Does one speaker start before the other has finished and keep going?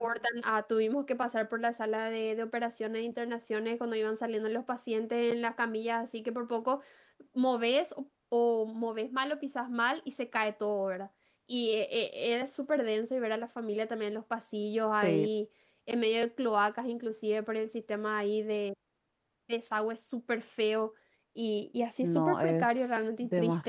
Yes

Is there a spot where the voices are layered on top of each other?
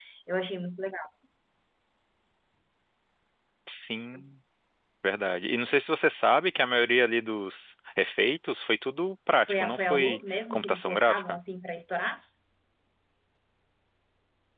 Yes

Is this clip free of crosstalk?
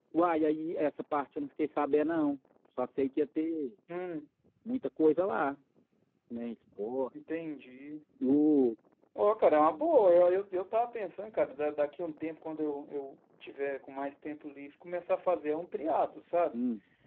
Yes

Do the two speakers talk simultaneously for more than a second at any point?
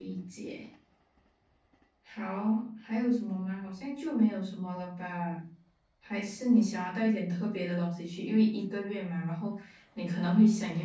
No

